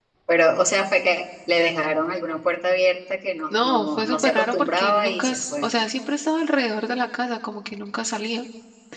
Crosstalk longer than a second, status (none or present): present